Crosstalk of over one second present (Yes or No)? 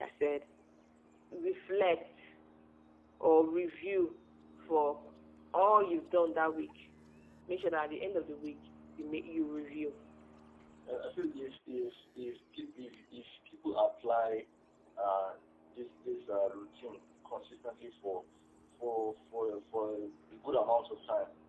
No